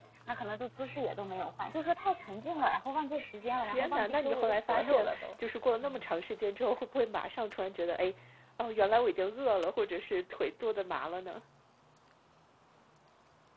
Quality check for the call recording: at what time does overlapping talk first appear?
3.6 s

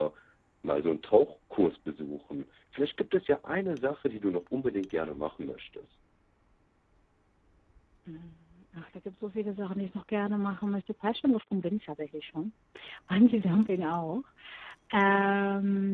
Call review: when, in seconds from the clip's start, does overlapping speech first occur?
none

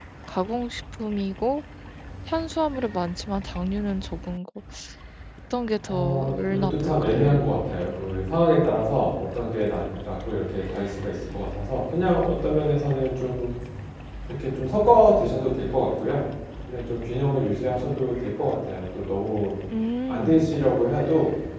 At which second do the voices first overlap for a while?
5.9 s

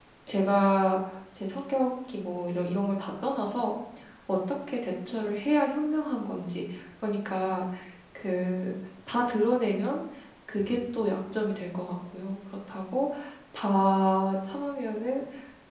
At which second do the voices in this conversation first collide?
none

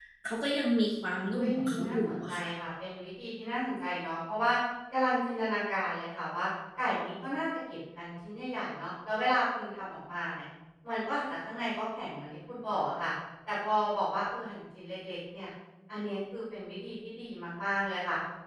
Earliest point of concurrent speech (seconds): 1.1 s

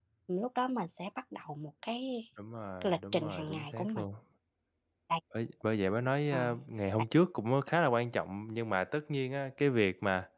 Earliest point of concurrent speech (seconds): 2.8 s

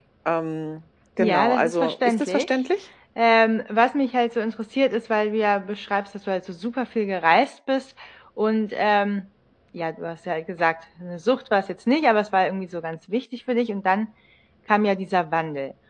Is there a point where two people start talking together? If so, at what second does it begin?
1.2 s

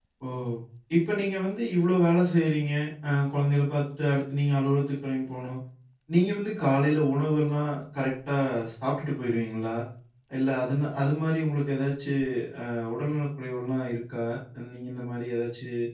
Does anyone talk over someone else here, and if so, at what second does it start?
none

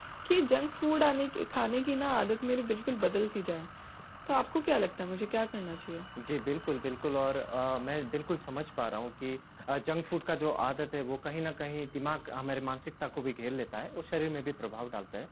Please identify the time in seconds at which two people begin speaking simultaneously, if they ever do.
none

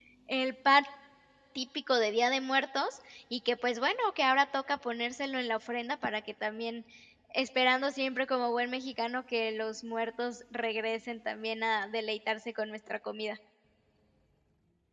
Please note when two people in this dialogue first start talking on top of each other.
none

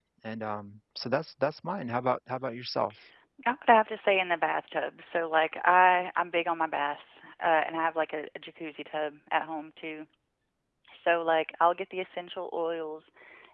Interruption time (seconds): none

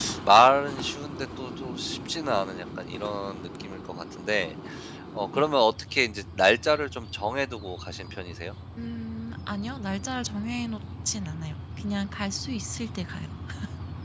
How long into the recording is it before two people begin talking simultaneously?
none

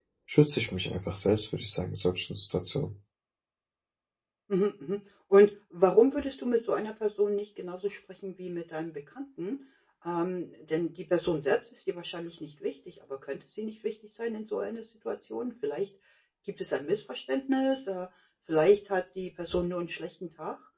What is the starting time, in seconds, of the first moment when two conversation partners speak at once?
none

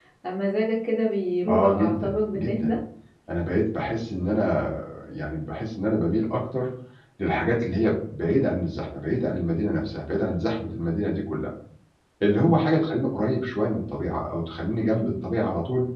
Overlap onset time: 1.5 s

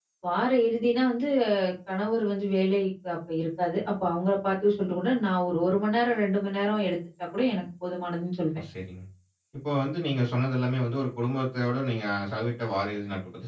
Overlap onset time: none

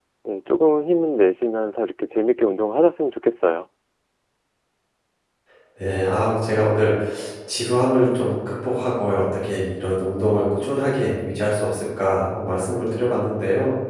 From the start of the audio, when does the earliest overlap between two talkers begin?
none

